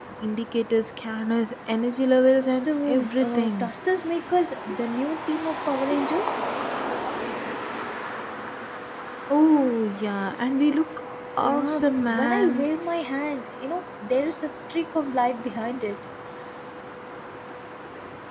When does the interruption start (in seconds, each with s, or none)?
2.5 s